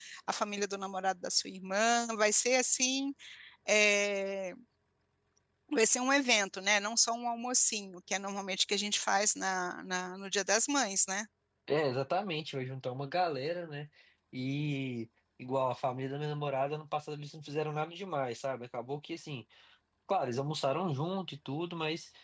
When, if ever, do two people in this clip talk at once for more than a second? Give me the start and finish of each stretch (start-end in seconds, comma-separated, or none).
none